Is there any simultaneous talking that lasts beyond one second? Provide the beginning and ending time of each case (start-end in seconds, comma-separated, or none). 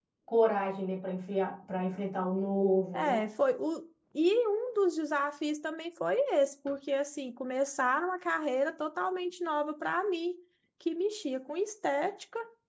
none